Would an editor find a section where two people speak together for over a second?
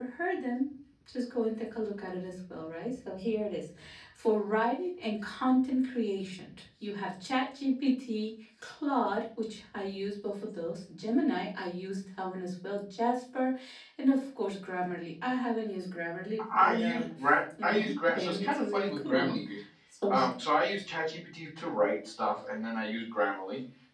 Yes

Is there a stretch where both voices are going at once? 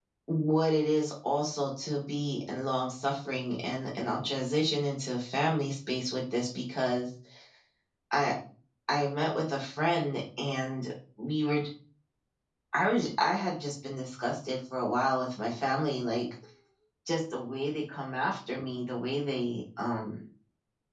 No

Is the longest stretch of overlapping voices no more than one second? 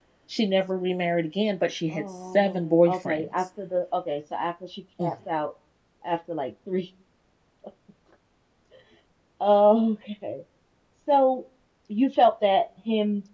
No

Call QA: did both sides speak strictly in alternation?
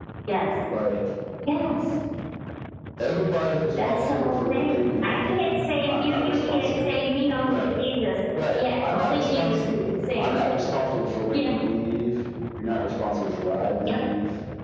No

